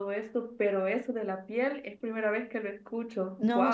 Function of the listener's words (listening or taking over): taking over